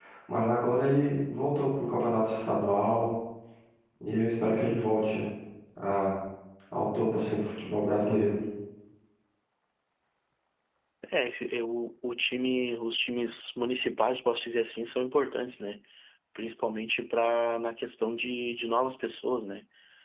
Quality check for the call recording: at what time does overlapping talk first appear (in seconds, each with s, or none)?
none